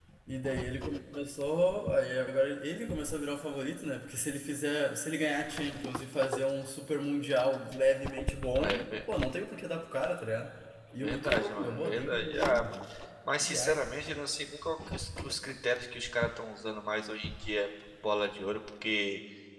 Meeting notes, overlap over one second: present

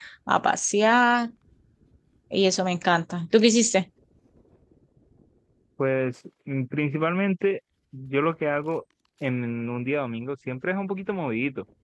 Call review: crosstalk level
none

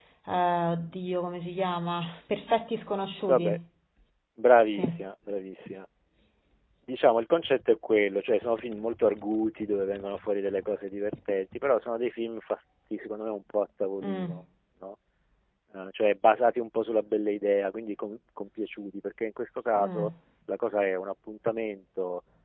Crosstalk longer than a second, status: none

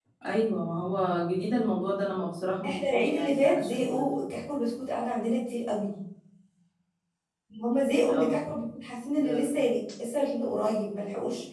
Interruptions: present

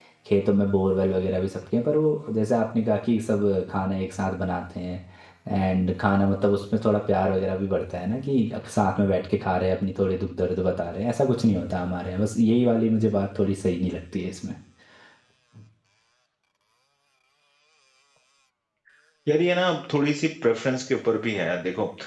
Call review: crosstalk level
none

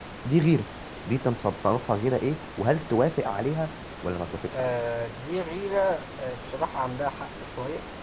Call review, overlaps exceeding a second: none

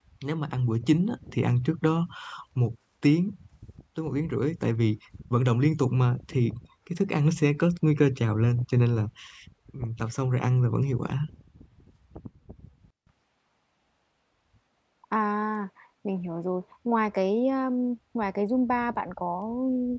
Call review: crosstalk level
none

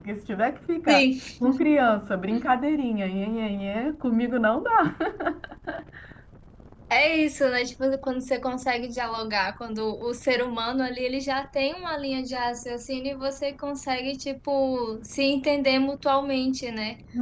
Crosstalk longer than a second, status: none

